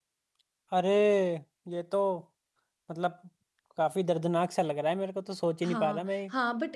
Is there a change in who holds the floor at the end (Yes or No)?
Yes